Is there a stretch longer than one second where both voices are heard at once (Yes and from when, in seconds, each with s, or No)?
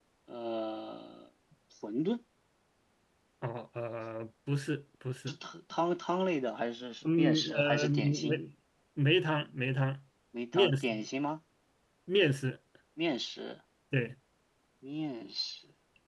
Yes, from 7.0 s